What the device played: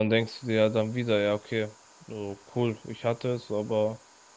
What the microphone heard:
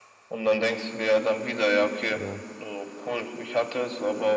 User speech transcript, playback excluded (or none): Ja,